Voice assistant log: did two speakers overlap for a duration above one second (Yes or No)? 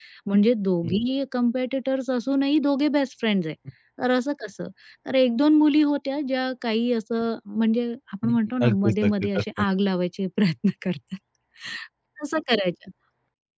Yes